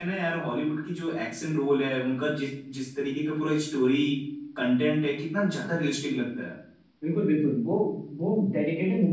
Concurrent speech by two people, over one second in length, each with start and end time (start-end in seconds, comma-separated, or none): none